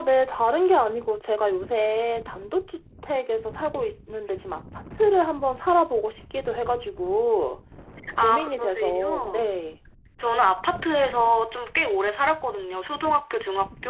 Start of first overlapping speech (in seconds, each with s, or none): 8.2 s